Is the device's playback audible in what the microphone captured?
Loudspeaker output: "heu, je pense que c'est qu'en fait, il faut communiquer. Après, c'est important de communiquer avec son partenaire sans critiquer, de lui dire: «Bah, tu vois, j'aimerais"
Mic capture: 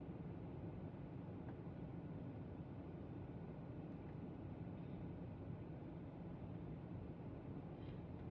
No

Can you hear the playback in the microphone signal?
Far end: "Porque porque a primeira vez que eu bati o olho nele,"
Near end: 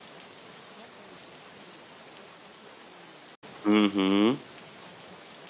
No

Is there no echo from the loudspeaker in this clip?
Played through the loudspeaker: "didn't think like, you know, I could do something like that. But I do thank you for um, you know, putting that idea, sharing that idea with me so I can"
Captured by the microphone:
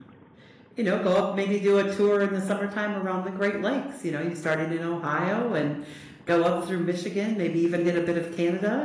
Yes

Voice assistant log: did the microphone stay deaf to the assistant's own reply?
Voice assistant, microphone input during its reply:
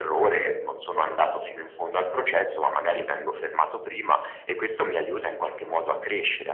No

